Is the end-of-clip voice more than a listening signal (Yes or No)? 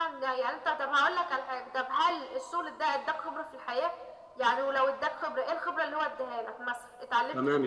Yes